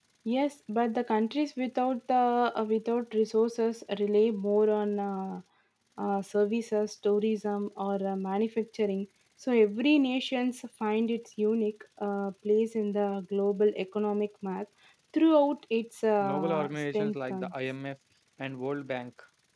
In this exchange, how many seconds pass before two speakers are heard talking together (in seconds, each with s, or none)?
16.2 s